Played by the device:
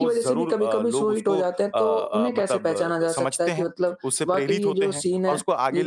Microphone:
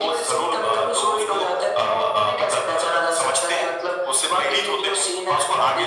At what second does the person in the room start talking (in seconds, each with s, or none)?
none